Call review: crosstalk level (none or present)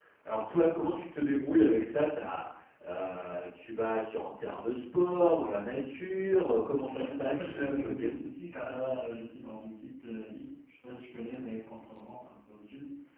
present